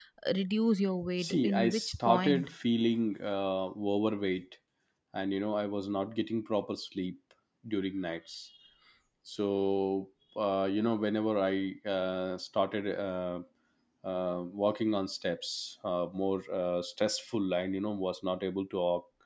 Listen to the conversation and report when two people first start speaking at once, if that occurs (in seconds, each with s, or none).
1.2 s